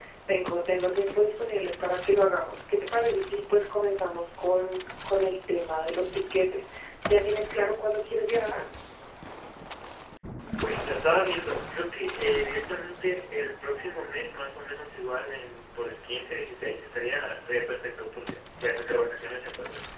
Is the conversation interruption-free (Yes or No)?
Yes